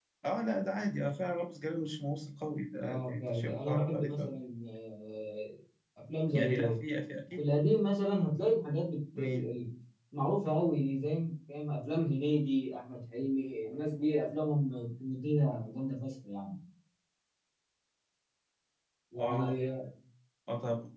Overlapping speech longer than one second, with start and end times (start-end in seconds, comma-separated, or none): 2.8-4.3